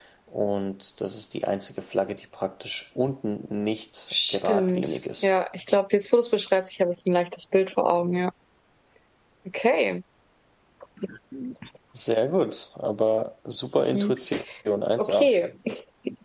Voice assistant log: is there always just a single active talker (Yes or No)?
No